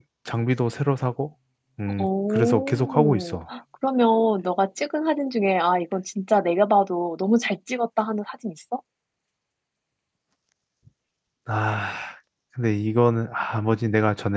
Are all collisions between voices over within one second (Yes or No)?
No